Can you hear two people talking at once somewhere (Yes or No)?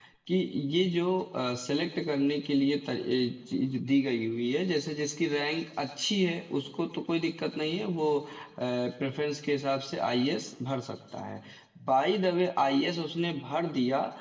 No